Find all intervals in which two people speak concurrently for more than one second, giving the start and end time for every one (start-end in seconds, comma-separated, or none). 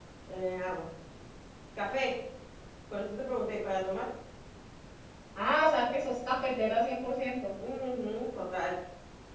none